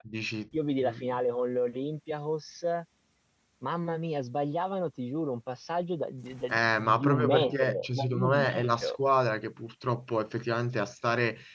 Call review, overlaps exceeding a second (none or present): present